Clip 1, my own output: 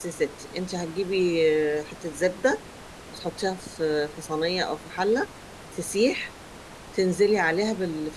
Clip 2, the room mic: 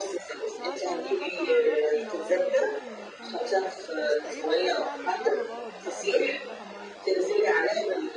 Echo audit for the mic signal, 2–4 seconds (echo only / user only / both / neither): both